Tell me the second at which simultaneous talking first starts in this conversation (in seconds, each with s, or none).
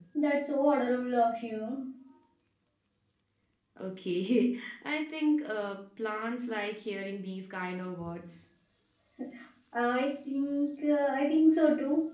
none